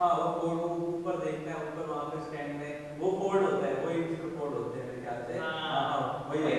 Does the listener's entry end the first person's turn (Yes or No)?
Yes